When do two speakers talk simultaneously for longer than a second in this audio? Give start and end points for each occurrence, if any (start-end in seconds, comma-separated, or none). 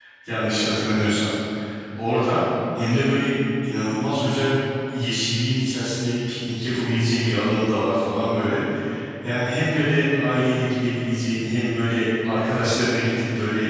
none